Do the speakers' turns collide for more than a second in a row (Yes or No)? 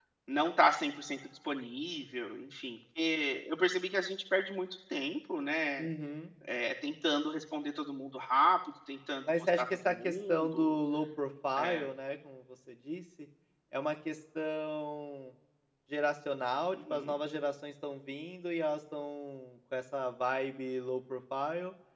Yes